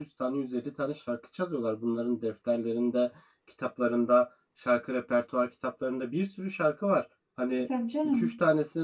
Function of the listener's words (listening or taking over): listening